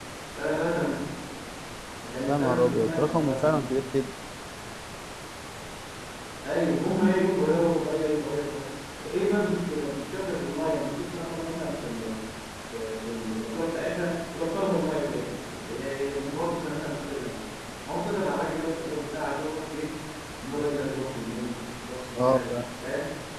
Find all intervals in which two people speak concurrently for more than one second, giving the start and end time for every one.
2.3-3.8

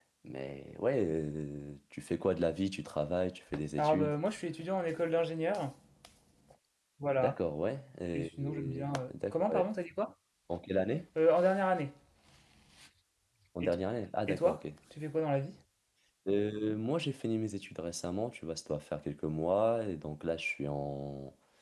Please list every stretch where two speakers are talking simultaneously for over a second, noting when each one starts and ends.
8.1-9.7

